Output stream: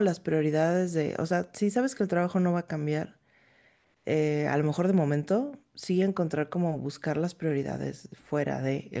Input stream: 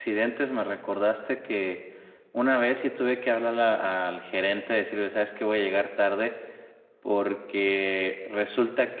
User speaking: Yes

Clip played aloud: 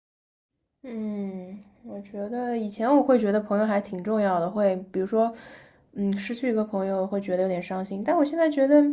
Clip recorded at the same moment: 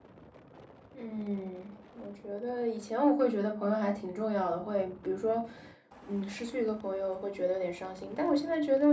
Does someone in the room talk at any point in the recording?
No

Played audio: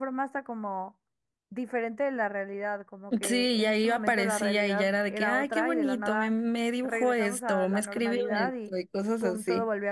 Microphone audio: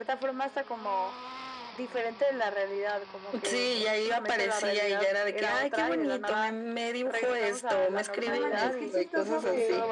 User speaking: Yes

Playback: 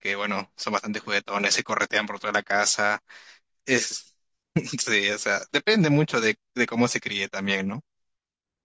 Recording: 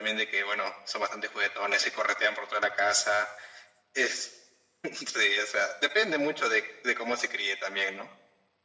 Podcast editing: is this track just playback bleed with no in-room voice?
Yes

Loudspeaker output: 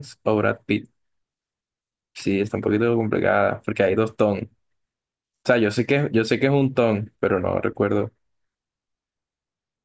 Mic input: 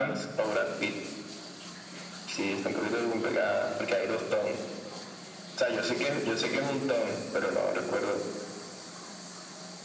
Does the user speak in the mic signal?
No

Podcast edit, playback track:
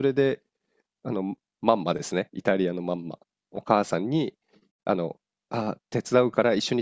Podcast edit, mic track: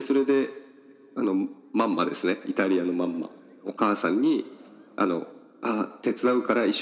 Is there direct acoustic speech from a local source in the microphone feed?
No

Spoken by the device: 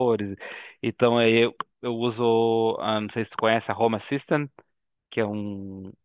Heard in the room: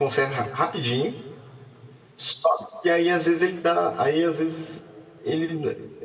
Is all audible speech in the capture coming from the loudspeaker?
No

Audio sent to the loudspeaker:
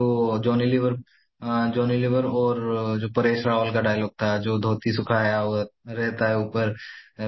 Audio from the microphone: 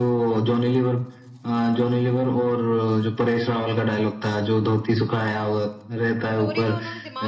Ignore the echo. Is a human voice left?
Yes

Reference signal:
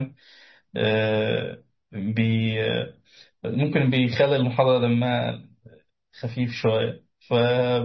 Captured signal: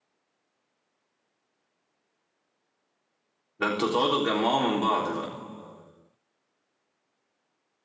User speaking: Yes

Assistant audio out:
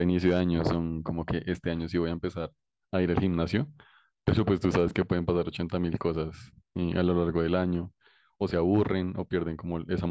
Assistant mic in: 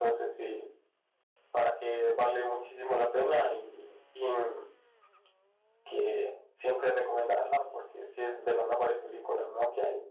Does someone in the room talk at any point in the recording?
Yes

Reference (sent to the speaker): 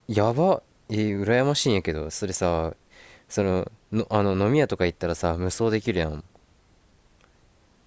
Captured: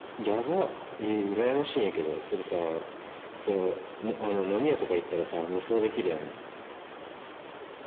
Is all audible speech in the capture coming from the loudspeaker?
Yes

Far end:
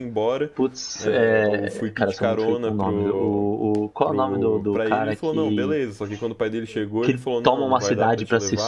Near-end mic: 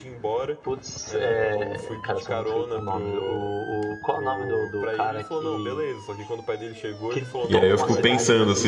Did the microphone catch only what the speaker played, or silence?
No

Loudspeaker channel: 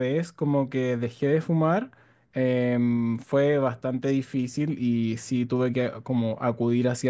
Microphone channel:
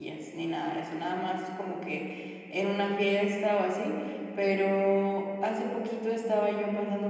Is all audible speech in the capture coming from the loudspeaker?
No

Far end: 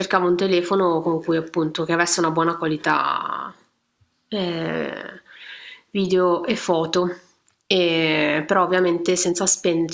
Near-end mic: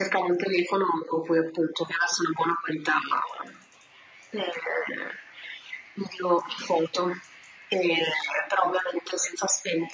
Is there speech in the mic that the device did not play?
No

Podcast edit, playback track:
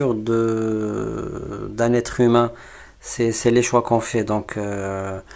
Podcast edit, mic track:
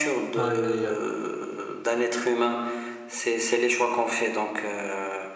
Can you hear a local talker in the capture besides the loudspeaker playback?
Yes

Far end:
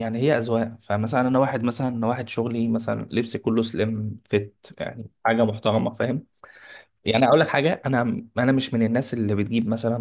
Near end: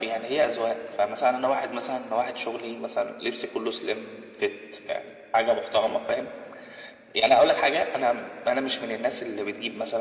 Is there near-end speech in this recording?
No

